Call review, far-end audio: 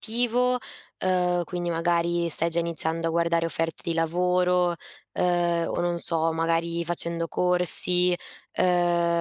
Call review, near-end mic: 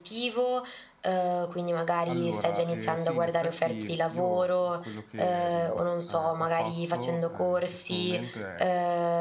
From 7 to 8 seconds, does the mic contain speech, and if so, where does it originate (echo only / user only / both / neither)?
both